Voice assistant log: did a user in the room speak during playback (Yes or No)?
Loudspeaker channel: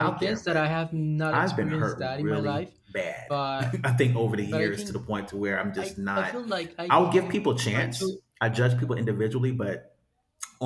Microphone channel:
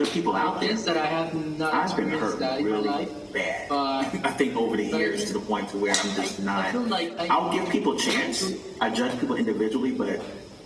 No